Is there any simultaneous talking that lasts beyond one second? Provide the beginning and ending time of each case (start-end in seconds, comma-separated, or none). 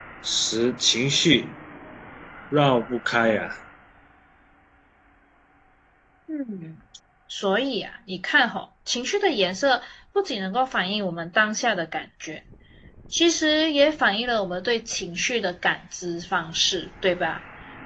none